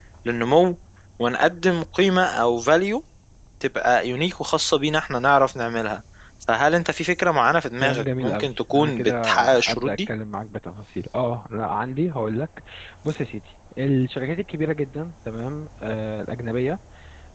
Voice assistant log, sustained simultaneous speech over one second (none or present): present